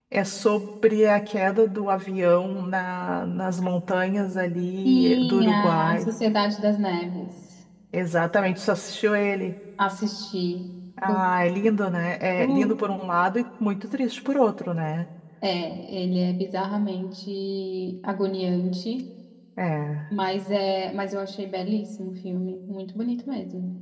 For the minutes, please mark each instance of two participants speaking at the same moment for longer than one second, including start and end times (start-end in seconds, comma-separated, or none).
4.8-6.1